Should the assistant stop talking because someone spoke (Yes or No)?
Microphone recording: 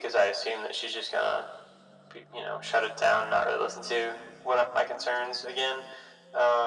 No